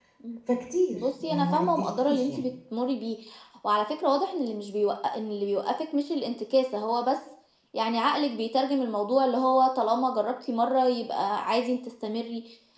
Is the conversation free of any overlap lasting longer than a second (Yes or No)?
No